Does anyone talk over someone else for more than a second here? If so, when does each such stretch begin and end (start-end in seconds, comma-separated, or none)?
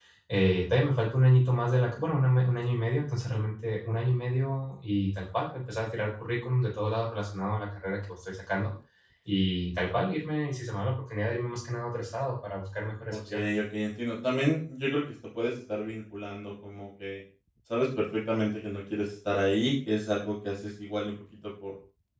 none